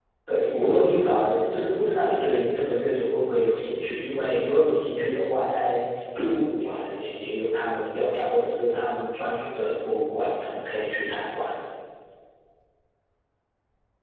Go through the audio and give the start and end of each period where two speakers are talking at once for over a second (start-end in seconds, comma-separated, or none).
0.5-2.0